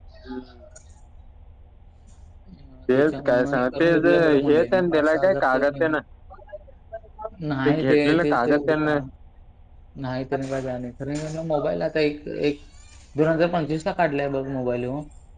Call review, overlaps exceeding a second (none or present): present